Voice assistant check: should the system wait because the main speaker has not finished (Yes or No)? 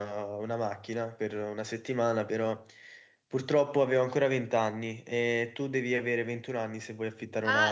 No